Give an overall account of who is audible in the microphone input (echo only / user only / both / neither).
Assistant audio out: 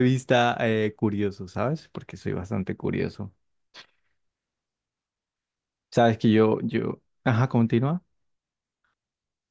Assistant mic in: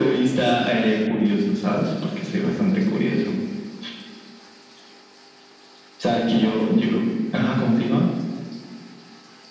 echo only